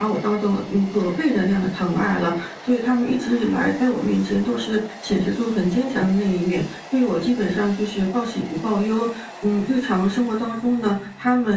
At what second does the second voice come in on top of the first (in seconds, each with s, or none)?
none